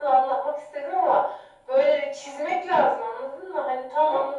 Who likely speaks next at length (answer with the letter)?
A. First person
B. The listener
B